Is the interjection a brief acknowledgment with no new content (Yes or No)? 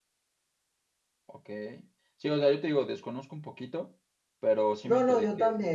No